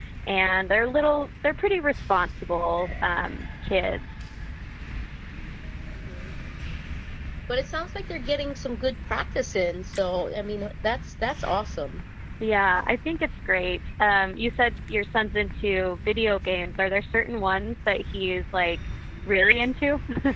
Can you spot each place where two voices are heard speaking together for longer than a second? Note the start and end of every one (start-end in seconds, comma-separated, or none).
none